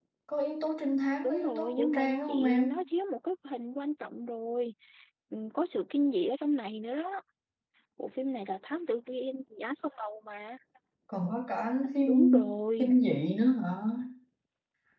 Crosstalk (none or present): present